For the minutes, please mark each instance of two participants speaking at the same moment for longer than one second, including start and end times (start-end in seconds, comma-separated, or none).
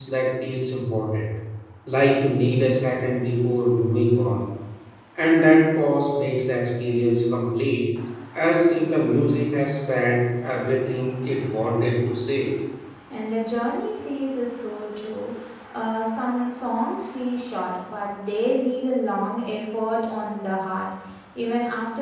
none